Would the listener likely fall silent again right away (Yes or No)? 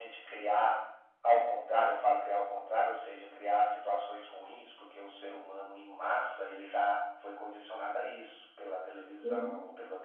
Yes